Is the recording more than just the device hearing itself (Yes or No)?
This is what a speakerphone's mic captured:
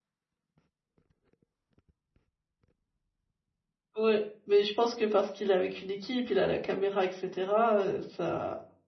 Yes